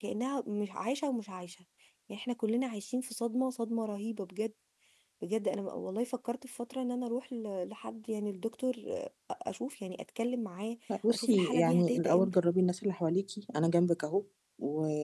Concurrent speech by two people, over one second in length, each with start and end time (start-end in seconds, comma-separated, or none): 11.1-12.4